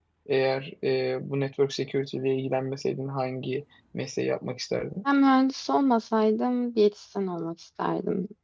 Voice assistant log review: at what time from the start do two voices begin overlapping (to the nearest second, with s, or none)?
none